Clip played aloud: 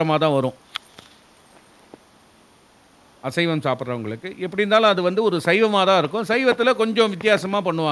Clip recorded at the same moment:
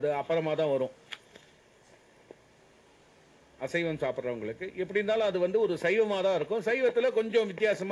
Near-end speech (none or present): none